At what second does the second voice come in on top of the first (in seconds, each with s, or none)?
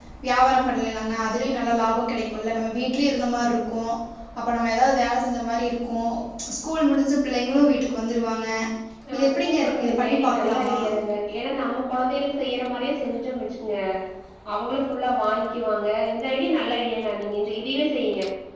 9.2 s